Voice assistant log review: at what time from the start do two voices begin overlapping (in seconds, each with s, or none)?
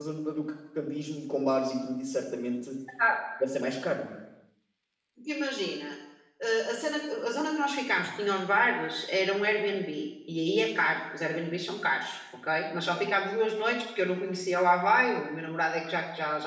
none